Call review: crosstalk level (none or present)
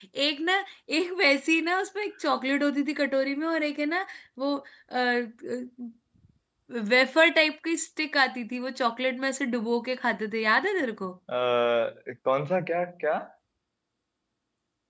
none